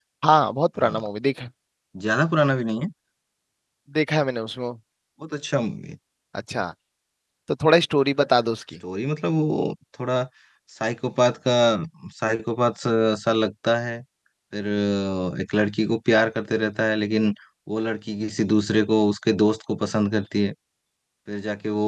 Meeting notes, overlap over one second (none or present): none